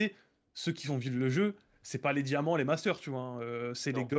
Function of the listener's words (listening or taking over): listening